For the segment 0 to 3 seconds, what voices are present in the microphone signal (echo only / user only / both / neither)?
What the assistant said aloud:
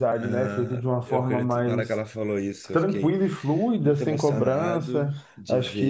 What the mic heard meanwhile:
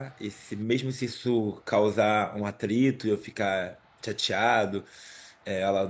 user only